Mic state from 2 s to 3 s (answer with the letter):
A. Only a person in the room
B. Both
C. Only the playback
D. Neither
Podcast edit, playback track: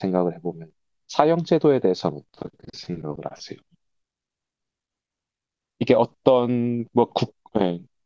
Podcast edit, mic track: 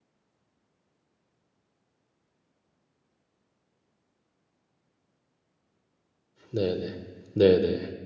D